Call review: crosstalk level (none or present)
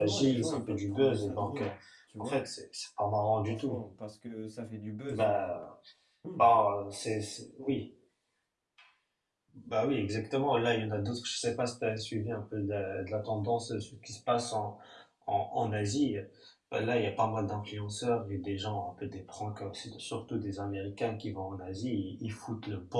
present